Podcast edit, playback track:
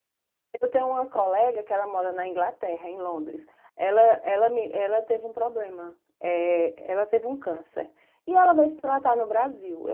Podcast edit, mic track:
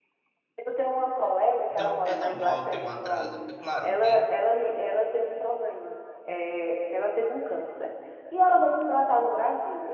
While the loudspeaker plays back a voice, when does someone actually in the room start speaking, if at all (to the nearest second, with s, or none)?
2 s